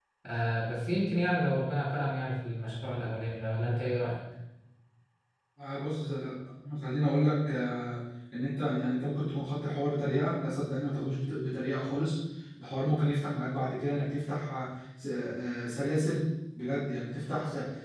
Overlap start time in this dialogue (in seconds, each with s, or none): none